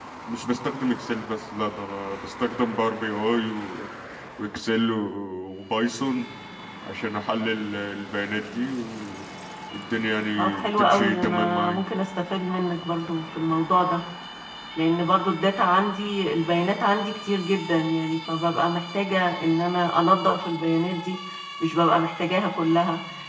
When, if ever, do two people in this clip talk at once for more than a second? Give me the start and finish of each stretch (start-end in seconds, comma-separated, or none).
10.4-11.8